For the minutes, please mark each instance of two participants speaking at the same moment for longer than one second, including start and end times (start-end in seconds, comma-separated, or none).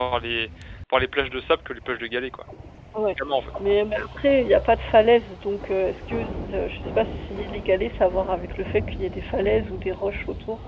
none